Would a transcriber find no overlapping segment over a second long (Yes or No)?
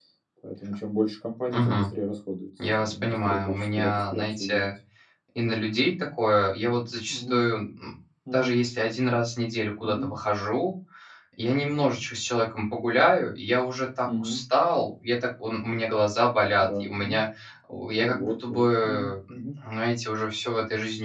No